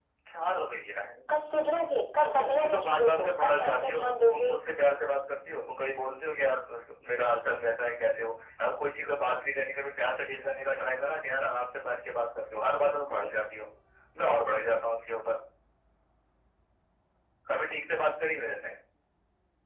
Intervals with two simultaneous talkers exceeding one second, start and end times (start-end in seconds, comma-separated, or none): 2.4-4.5